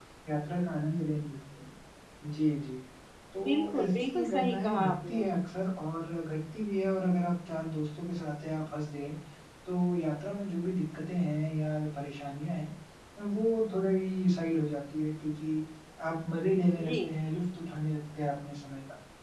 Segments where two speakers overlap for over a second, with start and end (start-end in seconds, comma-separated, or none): 3.4-5.2